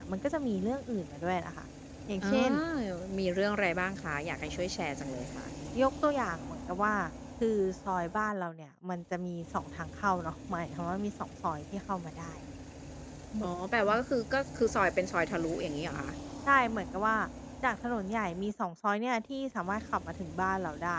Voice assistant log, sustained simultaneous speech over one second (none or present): none